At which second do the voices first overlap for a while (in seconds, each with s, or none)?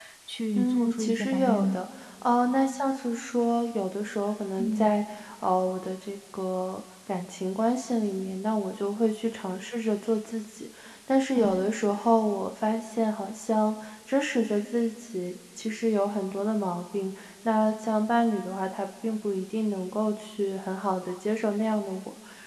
0.6 s